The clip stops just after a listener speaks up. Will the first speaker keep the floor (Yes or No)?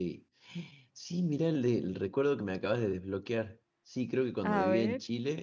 Yes